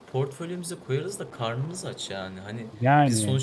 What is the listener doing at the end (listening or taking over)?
listening